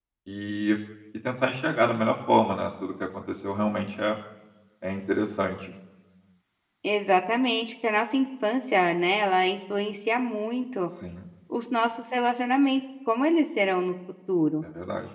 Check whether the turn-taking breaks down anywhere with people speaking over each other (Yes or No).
No